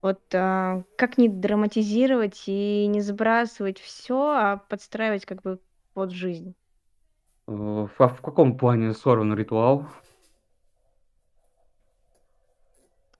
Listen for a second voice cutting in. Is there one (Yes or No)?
No